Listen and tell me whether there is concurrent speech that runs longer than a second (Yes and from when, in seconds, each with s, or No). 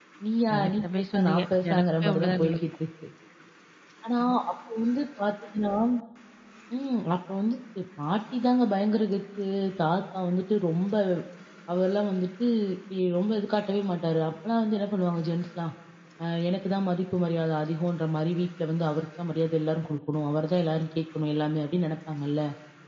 Yes, from 0.5 s